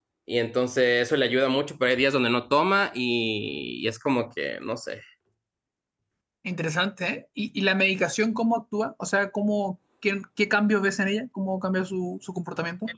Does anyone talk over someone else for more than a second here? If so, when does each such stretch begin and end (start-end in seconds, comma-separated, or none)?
none